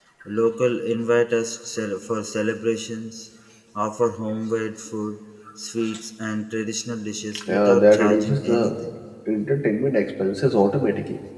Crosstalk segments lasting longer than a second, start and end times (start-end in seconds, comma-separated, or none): 7.5-8.8